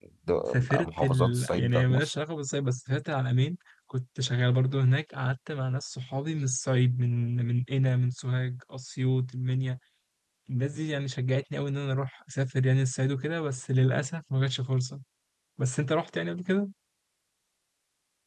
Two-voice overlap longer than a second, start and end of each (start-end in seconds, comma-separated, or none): 0.5-2.1